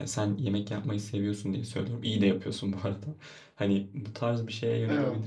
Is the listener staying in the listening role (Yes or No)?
Yes